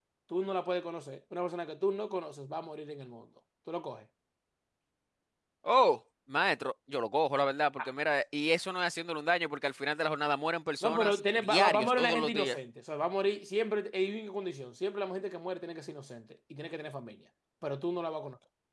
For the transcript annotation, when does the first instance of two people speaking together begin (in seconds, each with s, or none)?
10.8 s